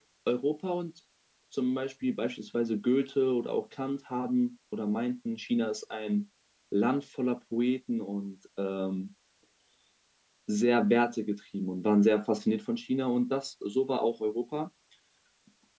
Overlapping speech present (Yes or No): No